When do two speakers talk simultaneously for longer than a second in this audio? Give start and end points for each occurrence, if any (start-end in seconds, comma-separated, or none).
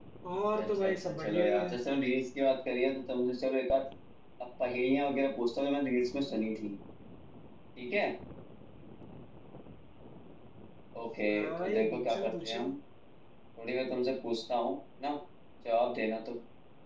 0.5-1.8, 11.3-12.7